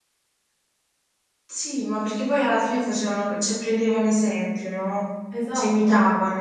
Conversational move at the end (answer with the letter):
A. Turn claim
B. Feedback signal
A